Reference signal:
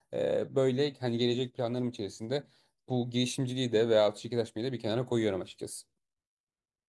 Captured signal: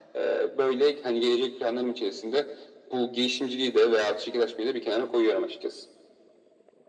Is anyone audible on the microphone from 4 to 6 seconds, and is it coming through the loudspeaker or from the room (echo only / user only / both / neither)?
echo only